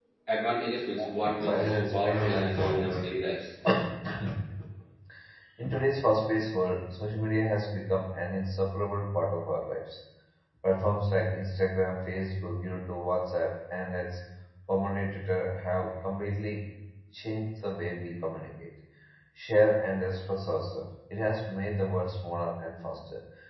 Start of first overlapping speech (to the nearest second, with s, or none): 1 s